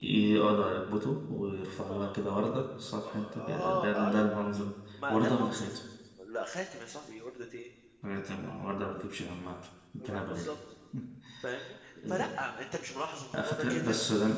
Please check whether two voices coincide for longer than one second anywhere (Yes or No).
Yes